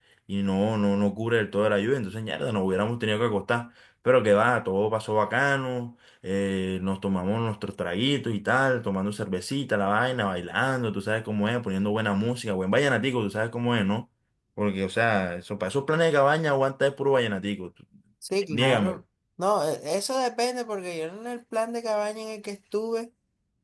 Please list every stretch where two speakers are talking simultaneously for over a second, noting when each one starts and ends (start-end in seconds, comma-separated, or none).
none